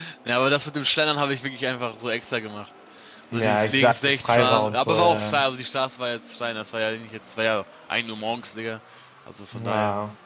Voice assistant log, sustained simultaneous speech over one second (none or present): present